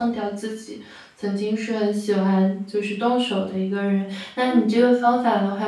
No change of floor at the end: Yes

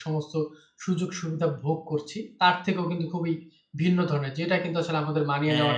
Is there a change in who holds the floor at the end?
No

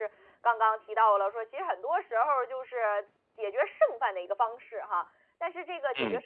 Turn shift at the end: No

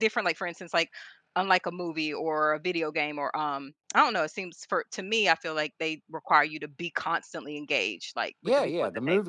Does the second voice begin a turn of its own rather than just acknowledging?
Yes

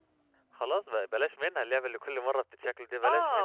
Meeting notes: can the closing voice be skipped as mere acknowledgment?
No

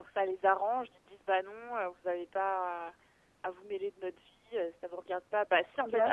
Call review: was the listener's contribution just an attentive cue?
Yes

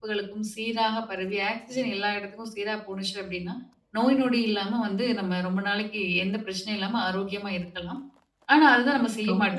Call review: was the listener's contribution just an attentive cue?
No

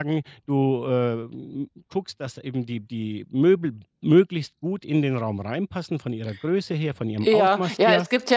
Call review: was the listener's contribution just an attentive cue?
No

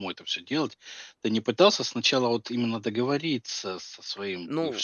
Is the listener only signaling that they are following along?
Yes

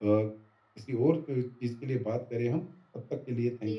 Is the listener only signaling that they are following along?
No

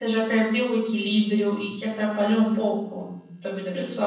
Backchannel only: No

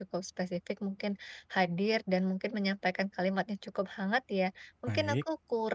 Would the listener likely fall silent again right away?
Yes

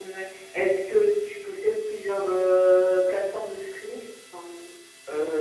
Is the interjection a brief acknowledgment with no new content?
No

